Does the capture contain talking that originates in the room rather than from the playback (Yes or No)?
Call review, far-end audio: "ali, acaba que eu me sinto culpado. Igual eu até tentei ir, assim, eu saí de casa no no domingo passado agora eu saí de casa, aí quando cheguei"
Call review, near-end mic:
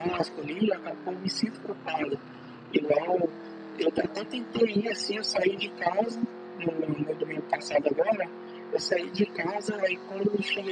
No